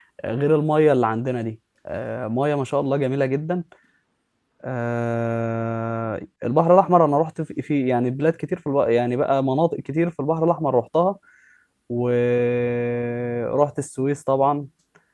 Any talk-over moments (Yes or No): No